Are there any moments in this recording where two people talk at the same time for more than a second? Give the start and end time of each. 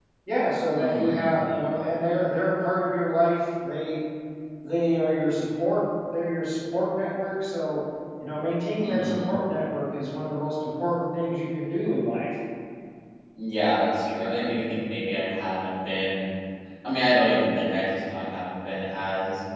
none

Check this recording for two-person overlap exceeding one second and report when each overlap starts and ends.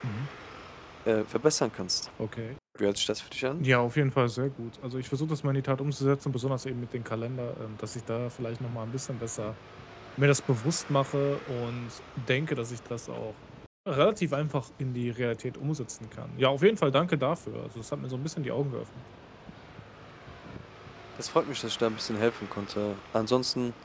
none

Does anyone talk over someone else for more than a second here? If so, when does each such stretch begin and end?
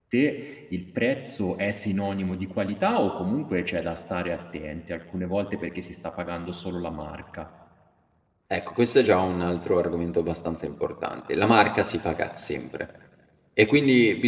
none

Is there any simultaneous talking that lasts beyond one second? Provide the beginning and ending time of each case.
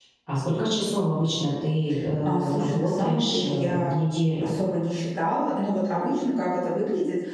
2.2-3.9

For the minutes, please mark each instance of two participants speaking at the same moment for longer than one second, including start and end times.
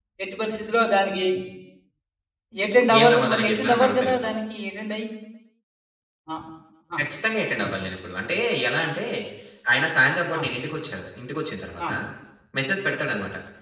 3.0-4.3

